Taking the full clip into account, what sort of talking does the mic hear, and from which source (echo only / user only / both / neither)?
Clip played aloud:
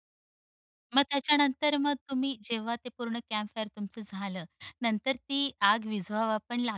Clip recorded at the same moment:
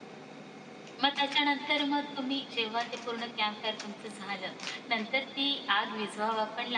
echo only